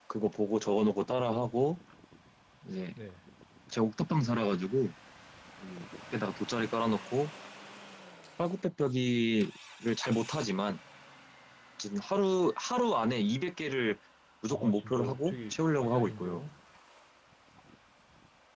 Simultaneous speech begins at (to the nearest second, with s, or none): 15 s